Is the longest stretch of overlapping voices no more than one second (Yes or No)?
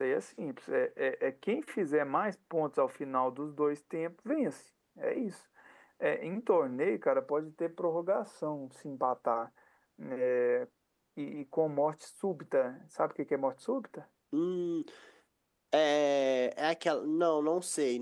Yes